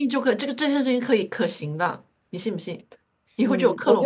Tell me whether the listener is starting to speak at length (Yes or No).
Yes